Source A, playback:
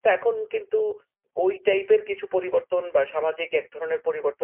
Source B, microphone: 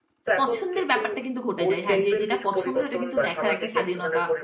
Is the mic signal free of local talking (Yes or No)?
No